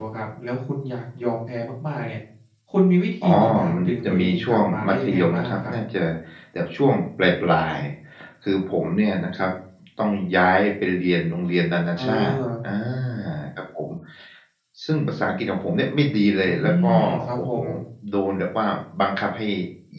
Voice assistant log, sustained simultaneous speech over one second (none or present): present